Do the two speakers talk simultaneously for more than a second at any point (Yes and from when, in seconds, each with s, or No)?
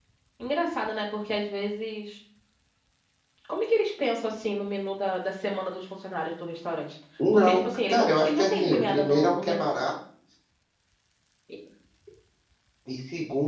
Yes, from 7.2 s